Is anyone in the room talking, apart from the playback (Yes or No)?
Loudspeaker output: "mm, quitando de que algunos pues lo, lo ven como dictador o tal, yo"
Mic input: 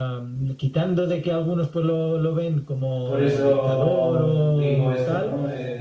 Yes